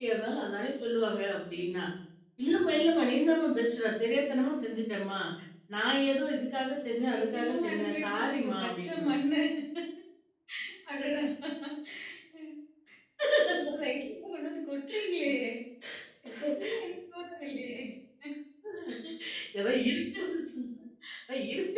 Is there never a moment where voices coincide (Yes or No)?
No